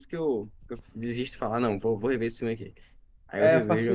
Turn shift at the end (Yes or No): Yes